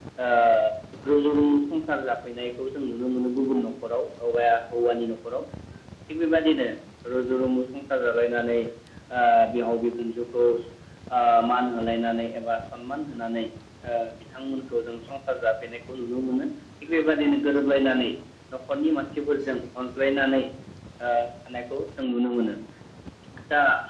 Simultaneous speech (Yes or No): No